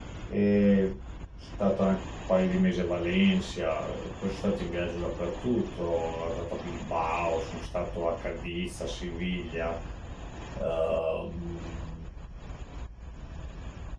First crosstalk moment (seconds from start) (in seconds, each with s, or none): none